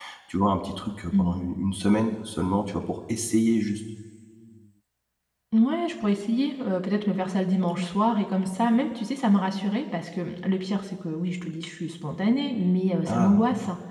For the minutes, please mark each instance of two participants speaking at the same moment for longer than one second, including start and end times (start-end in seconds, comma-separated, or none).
none